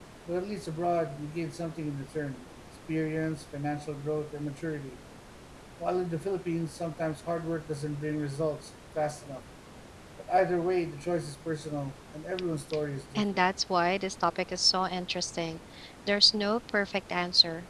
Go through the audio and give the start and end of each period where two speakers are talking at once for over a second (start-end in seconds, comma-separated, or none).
none